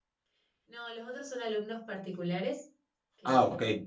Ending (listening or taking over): listening